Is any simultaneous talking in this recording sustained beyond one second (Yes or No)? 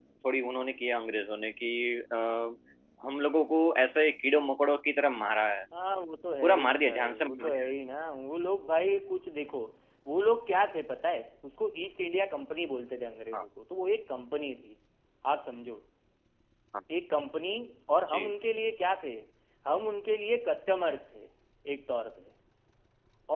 Yes